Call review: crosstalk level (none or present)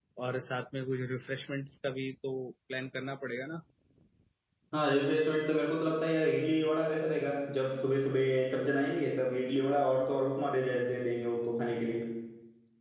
none